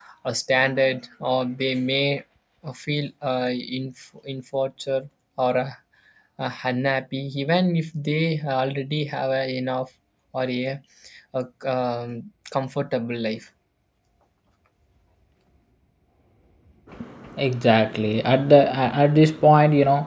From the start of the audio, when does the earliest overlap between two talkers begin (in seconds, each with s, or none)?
none